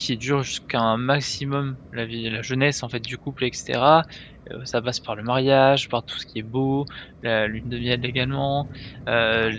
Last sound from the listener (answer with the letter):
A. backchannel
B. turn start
A